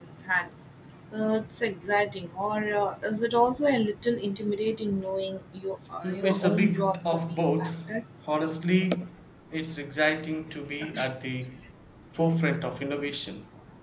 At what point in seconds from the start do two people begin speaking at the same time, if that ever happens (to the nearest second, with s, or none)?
6 s